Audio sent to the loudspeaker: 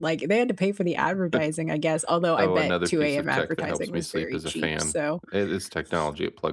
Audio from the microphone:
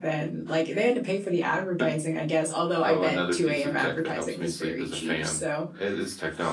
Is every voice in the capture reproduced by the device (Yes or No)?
Yes